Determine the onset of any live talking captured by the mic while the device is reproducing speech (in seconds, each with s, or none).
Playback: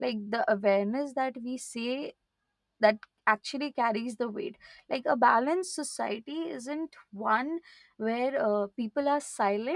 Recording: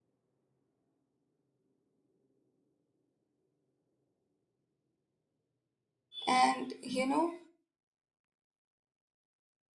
6.3 s